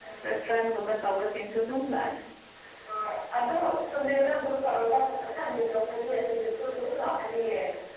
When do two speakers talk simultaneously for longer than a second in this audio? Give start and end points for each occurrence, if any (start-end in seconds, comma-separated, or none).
none